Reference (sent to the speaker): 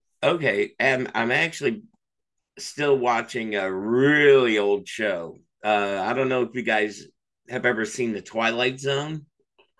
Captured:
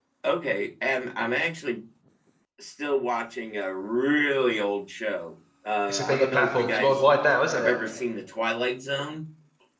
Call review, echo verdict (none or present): present